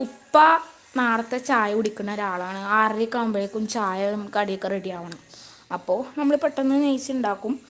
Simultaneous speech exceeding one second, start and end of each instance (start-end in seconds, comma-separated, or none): none